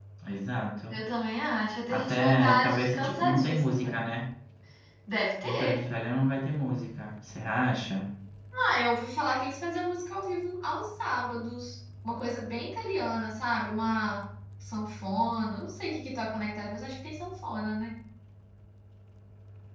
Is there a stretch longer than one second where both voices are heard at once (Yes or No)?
Yes